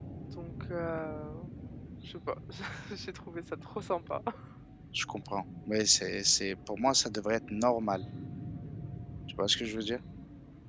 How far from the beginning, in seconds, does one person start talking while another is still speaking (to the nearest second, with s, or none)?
none